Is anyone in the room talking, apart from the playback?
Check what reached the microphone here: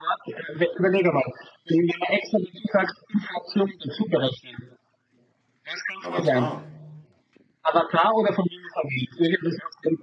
Yes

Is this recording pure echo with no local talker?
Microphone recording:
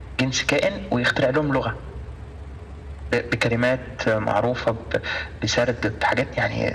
Yes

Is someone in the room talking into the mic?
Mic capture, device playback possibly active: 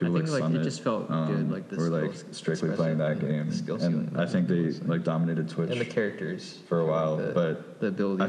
No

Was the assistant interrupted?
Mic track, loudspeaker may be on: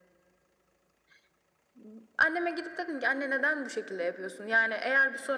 No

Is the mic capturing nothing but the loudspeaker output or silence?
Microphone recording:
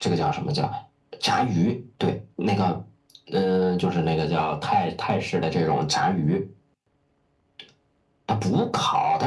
Yes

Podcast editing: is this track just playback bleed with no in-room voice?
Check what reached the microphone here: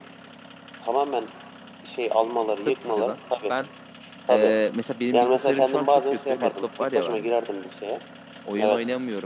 No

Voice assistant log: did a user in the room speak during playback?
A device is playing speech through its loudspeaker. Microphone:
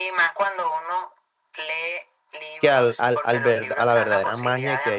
Yes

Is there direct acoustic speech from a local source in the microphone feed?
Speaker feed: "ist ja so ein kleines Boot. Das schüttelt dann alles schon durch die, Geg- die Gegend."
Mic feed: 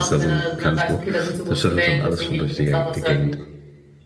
Yes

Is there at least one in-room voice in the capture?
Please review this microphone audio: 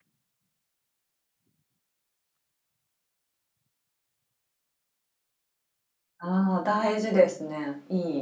Yes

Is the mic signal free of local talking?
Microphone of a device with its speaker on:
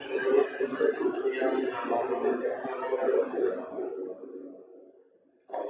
Yes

